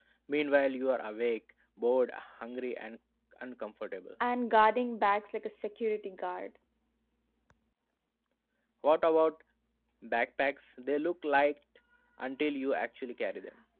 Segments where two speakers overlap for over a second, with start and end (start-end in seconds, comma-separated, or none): none